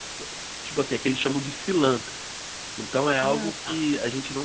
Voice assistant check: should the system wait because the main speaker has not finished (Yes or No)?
Yes